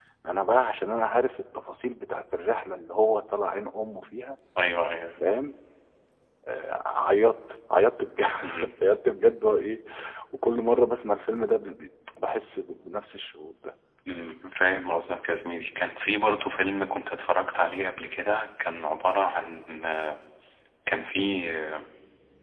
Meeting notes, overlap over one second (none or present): none